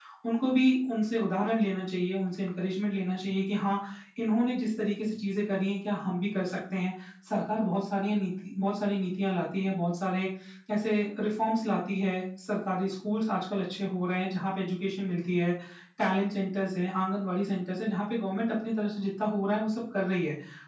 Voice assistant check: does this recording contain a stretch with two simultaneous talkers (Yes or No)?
No